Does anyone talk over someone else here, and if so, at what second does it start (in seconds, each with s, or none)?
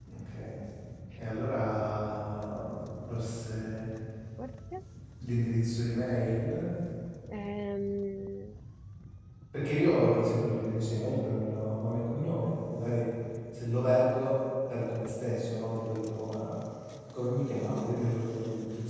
none